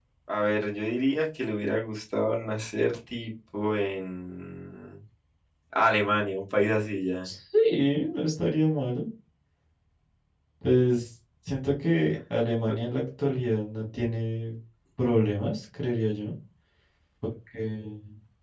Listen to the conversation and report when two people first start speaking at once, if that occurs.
none

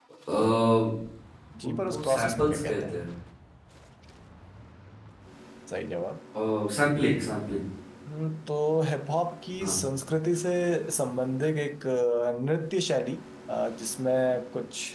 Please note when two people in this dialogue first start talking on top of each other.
2 s

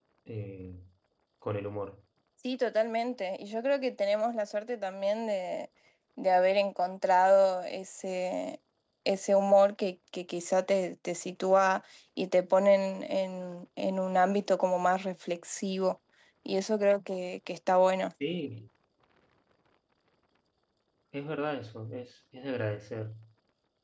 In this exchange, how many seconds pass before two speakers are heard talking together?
none

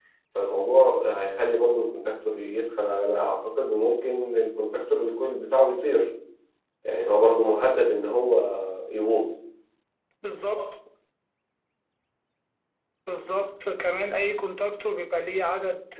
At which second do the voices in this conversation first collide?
none

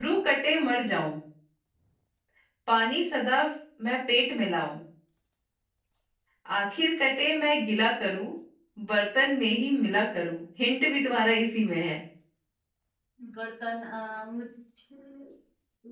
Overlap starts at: none

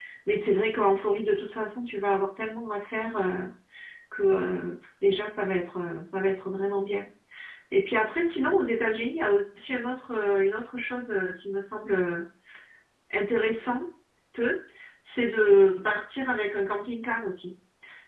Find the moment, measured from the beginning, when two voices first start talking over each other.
none

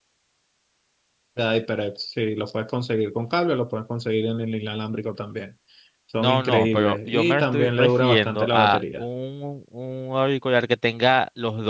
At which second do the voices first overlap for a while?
6 s

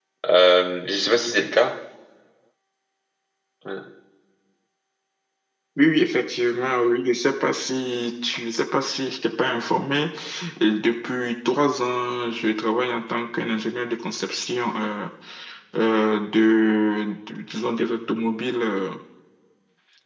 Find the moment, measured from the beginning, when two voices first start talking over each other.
none

